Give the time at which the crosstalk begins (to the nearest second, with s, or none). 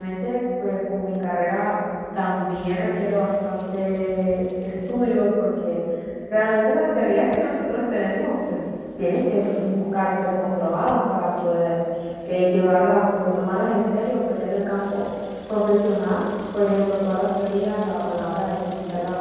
none